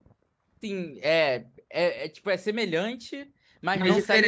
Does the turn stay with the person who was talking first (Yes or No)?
Yes